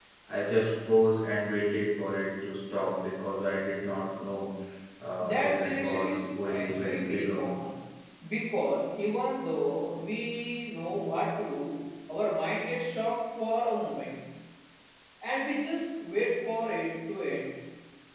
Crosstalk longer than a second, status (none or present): present